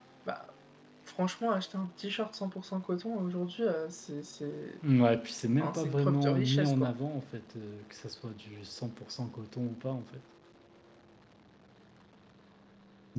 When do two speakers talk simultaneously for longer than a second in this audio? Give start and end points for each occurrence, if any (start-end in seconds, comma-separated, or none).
5.6-6.9